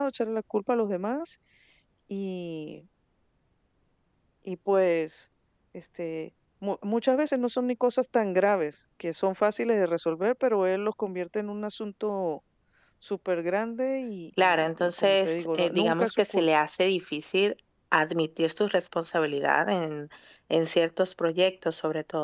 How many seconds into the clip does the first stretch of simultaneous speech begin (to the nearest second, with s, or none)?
14 s